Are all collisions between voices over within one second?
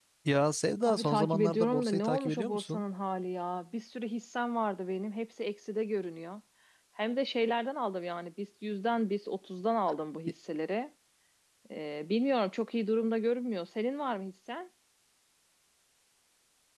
No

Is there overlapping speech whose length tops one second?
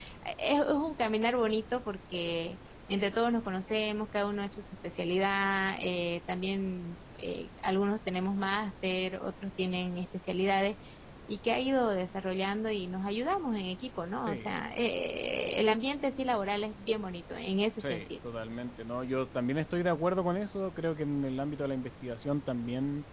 No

